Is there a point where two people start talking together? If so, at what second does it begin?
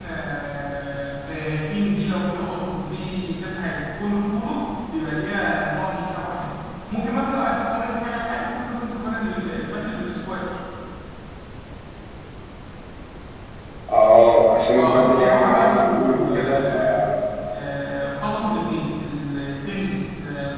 14.7 s

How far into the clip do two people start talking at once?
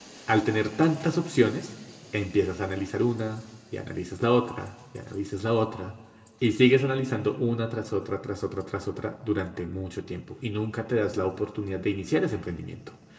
none

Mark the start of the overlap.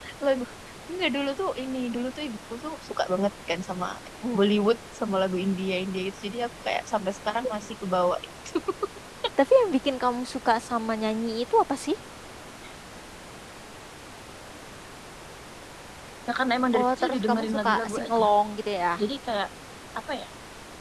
16.8 s

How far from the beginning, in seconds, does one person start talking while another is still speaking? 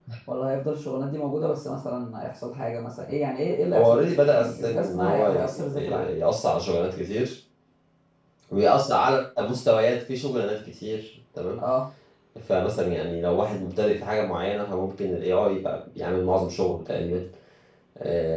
3.7 s

